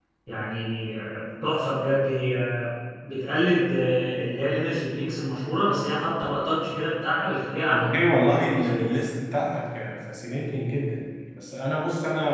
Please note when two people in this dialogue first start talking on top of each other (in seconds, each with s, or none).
7.7 s